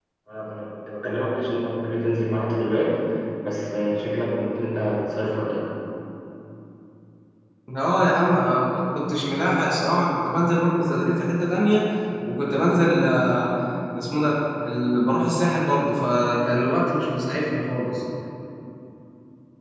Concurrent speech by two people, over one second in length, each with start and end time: none

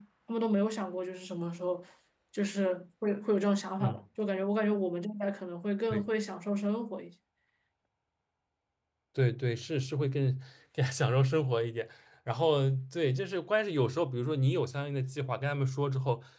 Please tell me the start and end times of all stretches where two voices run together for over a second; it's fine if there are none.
none

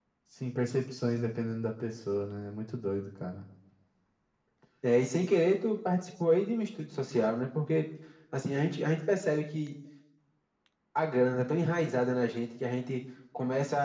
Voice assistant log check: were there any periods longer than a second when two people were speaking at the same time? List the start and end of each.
none

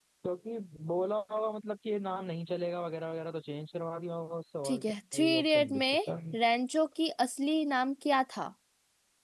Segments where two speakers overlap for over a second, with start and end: 4.6-6.3

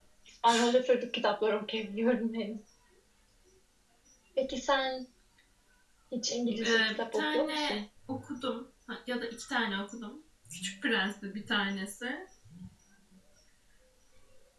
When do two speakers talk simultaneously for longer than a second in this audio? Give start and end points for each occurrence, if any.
6.5-7.8

